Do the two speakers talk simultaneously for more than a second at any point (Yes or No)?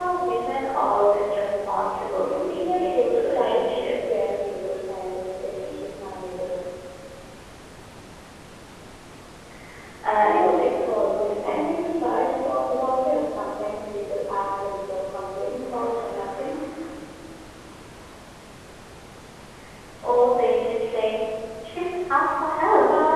Yes